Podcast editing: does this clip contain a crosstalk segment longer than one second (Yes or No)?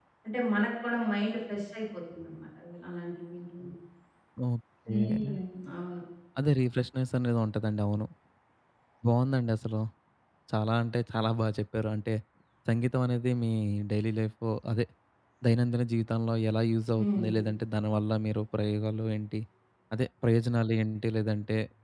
No